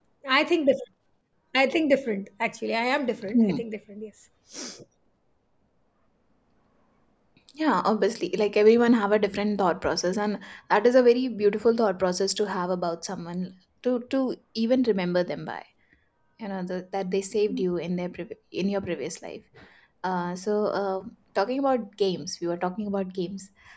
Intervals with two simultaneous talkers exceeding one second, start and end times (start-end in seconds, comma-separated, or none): none